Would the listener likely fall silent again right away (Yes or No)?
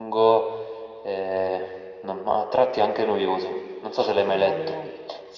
No